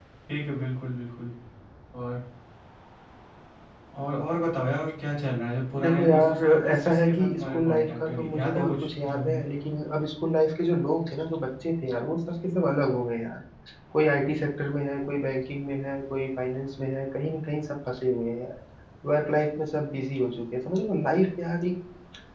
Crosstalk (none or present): present